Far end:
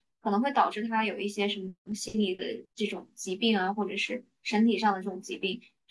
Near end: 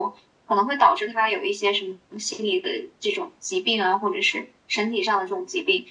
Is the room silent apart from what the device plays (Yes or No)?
Yes